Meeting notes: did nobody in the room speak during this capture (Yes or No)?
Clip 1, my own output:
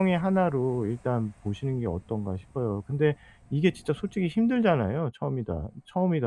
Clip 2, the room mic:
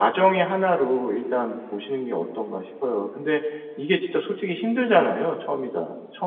Yes